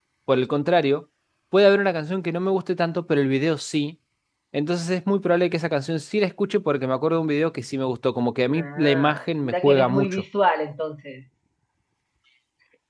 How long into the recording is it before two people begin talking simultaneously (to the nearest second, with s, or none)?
8 s